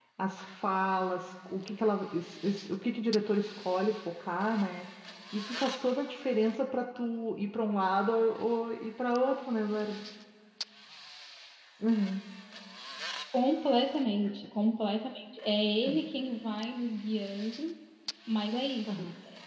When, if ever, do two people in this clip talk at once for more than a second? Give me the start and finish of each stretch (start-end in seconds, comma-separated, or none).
none